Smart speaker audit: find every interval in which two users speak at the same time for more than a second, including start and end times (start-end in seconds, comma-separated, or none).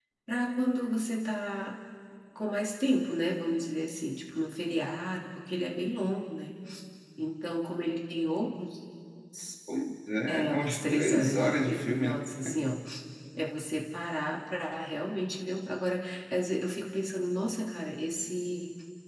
10.3-12.2